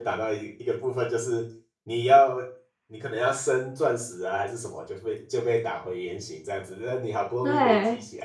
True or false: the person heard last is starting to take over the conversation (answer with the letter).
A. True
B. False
B